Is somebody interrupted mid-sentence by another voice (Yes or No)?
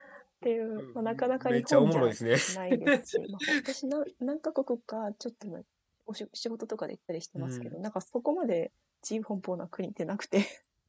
Yes